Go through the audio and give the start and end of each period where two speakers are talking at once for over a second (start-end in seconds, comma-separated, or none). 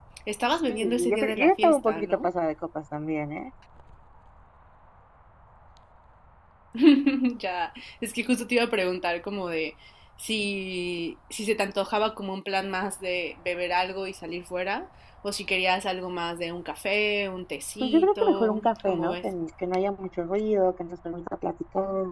0.7-2.3, 17.8-19.2